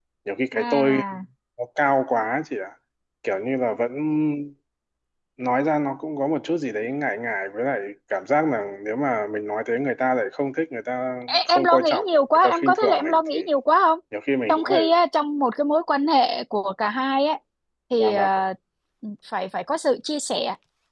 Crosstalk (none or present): present